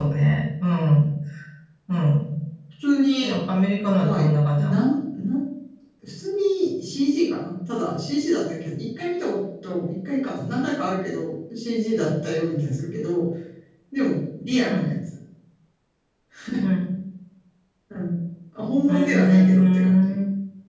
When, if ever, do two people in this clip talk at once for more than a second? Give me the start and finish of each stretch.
18.9-20.1

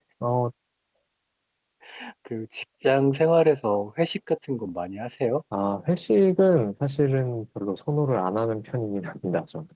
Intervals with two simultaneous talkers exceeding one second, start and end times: none

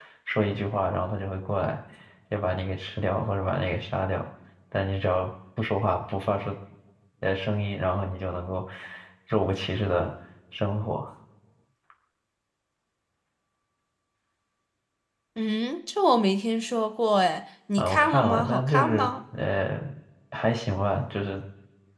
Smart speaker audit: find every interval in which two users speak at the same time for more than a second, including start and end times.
17.8-19.1

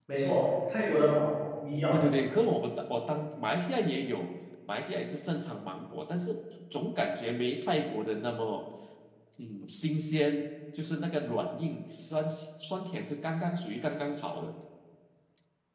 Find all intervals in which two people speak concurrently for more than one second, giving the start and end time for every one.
none

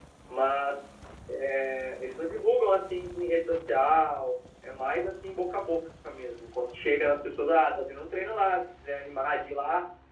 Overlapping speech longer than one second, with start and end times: none

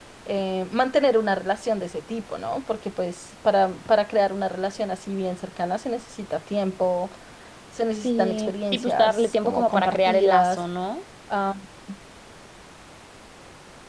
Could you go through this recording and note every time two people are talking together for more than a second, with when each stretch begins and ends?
8.0-10.6

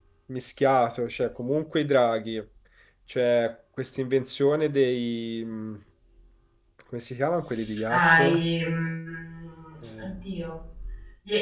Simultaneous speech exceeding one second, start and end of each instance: none

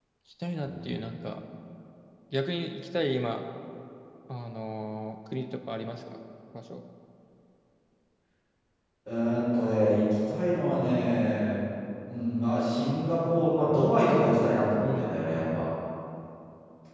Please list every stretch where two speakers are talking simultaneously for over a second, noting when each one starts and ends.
none

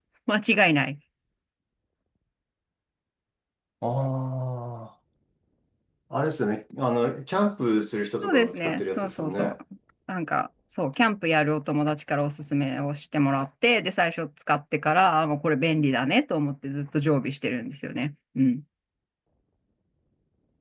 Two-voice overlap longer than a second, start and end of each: 8.2-9.5

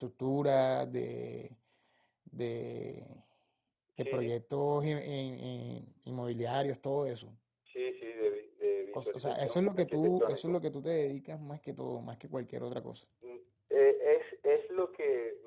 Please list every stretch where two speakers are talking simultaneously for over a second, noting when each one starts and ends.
8.9-10.5

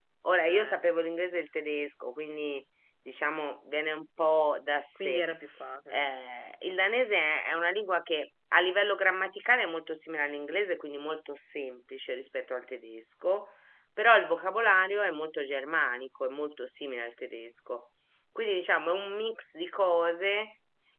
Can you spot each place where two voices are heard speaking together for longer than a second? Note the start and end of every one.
none

